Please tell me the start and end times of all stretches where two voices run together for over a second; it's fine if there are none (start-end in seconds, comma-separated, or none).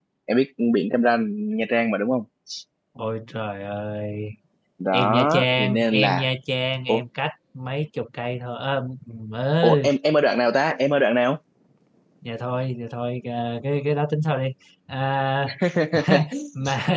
4.9-6.3